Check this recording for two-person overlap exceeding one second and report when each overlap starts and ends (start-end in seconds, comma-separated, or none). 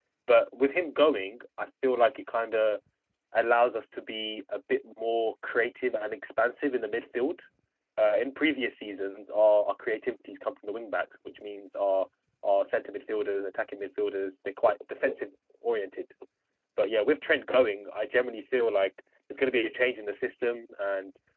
none